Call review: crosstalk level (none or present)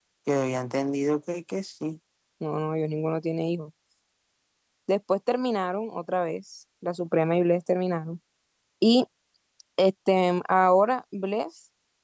none